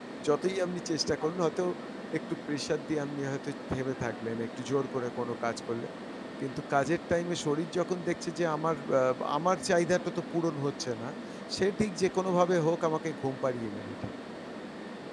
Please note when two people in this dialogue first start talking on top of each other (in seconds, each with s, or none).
none